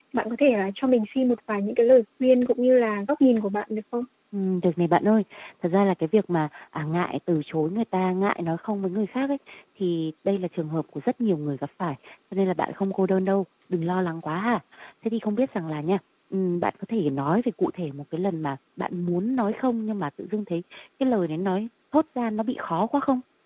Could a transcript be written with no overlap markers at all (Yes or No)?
Yes